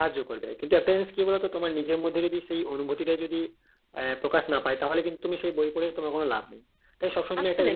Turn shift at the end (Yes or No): No